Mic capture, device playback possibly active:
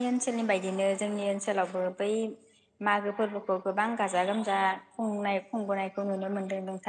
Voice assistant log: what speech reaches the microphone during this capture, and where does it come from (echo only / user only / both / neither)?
user only